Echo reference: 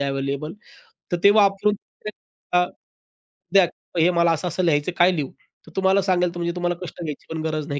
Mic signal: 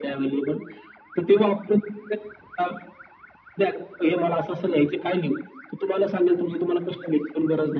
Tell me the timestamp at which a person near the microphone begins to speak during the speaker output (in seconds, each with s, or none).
none